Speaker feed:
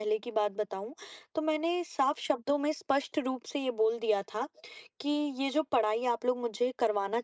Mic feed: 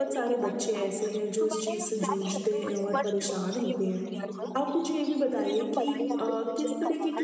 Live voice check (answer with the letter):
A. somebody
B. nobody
A